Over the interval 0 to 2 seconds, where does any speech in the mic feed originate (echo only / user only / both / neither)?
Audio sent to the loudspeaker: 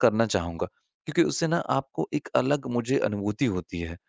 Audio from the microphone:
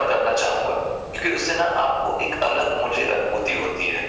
echo only